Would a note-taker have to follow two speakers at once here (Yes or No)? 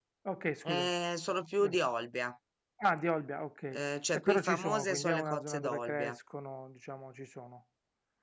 Yes